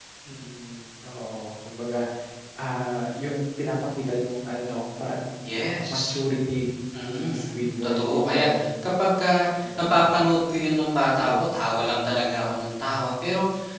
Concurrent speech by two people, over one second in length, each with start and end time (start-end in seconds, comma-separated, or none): 6.9-8.6